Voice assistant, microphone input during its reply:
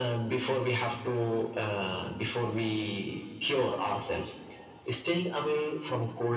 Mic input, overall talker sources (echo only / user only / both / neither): echo only